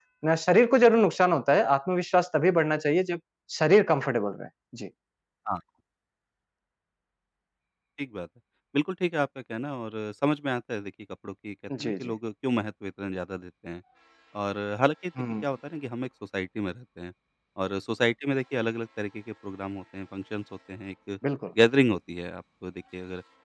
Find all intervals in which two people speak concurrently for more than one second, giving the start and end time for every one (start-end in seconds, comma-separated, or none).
none